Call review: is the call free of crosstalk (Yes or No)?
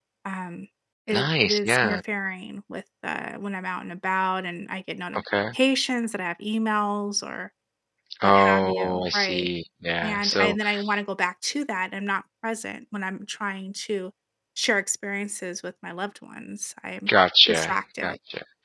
No